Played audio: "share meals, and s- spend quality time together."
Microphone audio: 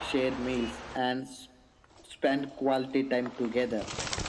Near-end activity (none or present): none